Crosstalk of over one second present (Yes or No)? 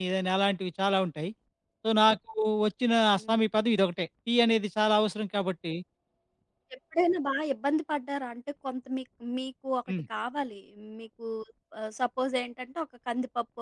No